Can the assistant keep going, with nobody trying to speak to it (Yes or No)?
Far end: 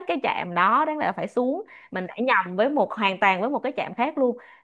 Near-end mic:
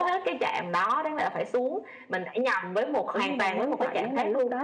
No